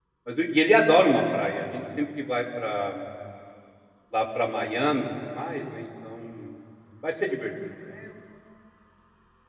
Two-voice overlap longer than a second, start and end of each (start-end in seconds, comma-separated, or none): none